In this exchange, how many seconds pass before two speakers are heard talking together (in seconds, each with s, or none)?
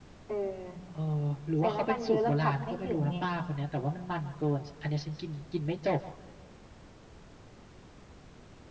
1.6 s